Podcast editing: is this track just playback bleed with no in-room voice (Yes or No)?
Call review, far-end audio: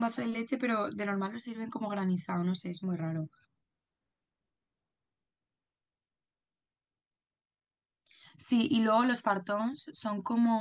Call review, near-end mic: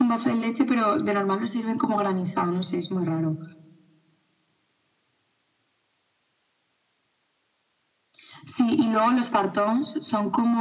Yes